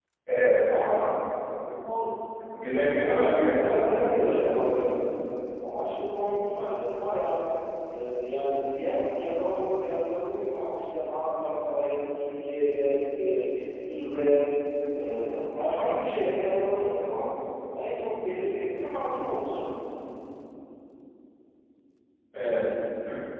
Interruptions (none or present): present